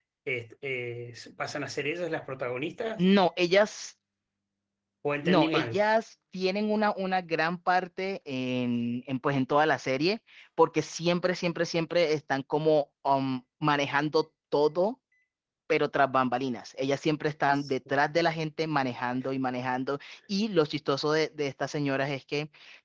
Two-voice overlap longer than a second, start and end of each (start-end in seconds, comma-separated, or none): none